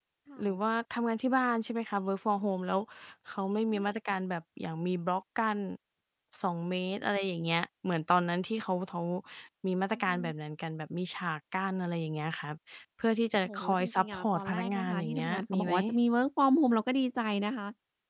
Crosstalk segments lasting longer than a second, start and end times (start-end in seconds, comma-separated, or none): 13.4-15.7